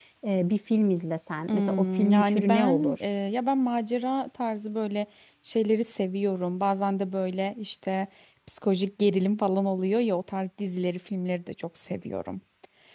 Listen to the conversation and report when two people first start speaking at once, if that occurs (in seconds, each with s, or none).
1.5 s